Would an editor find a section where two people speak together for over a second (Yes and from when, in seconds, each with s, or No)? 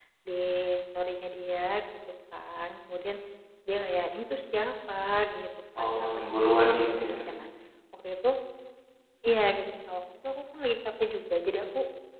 Yes, from 5.8 s